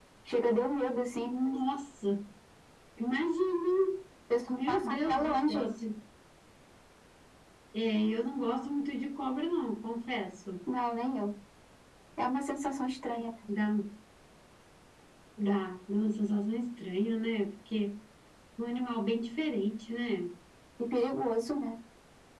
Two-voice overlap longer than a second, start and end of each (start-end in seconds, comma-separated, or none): 4.5-5.7